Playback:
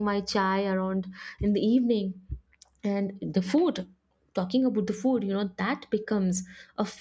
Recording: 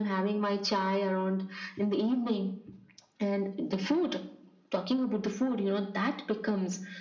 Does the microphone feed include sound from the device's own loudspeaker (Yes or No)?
Yes